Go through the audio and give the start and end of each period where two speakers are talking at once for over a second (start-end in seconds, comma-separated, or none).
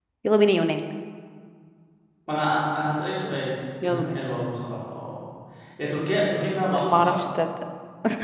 none